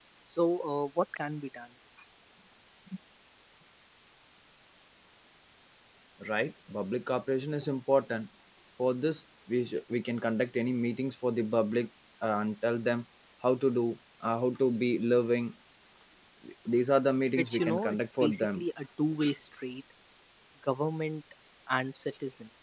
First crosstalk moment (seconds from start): 17.4 s

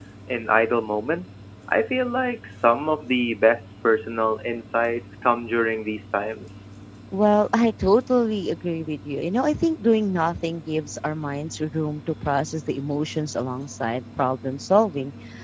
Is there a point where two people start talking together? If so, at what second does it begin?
none

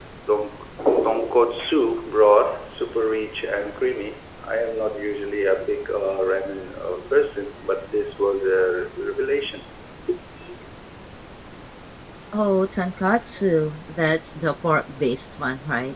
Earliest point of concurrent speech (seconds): none

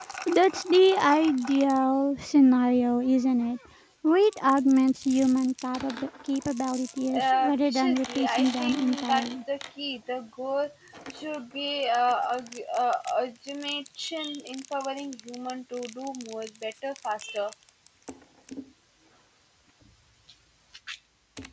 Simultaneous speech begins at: 7.1 s

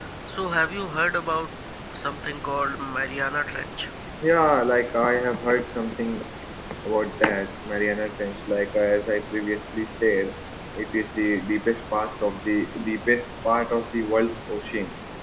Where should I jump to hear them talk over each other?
none

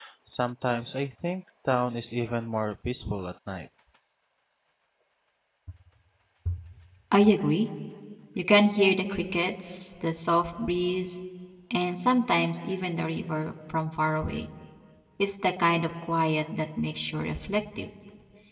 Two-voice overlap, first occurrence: none

